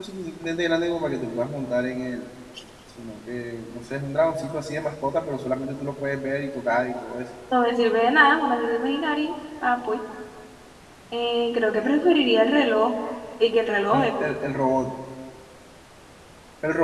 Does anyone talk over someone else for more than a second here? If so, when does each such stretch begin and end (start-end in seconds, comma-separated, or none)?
none